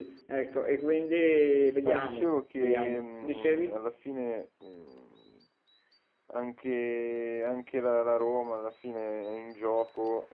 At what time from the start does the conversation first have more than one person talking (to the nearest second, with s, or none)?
2 s